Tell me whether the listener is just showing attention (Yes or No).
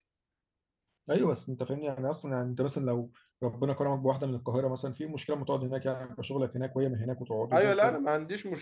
No